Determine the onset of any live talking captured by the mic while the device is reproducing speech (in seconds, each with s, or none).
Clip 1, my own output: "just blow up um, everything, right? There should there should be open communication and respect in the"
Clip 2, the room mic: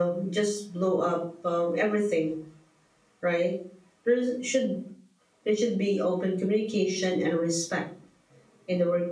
none